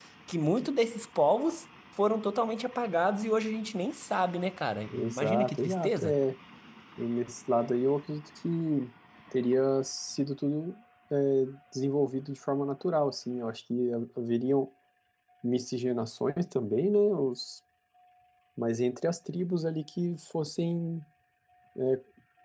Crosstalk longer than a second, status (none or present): present